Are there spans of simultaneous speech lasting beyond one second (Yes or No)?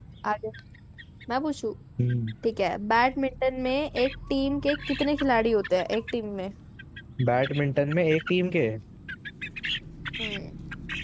No